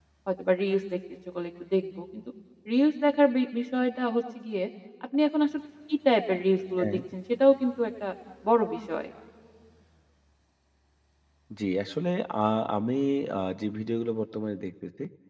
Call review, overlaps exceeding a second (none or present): none